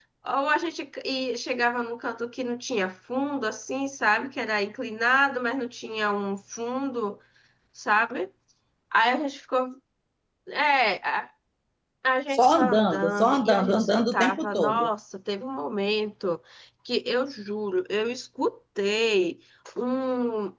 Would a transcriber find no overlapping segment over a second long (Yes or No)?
No